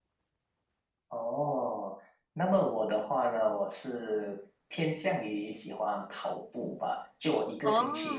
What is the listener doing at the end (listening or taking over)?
listening